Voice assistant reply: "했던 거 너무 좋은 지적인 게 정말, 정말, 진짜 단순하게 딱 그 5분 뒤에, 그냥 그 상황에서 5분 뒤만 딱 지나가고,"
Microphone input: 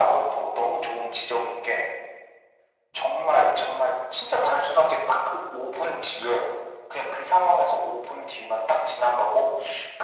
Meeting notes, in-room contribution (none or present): none